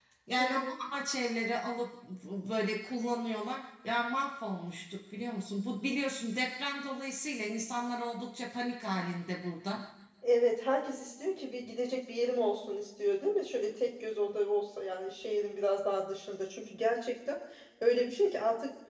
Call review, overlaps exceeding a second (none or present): none